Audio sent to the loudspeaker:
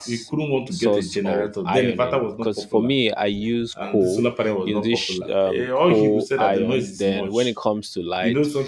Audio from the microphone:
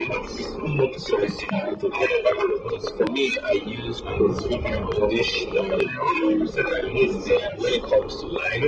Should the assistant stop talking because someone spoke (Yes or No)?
No